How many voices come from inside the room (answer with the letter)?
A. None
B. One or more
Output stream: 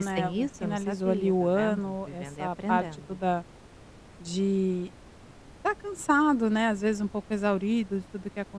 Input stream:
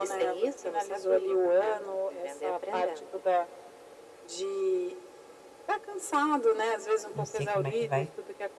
B